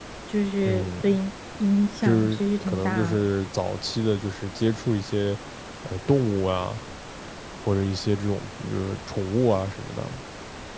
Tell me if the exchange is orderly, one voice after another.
No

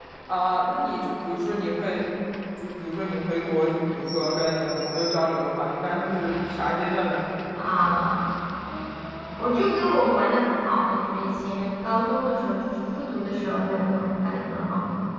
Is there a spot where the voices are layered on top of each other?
No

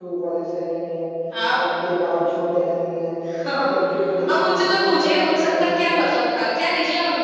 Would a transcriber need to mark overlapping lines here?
Yes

